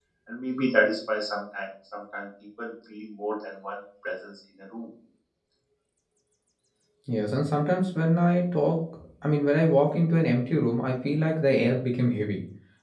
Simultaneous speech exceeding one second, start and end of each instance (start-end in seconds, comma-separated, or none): none